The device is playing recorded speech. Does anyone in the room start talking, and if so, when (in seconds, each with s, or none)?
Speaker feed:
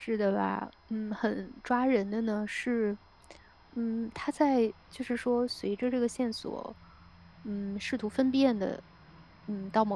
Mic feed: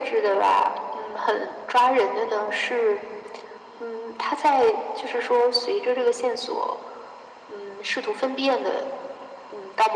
none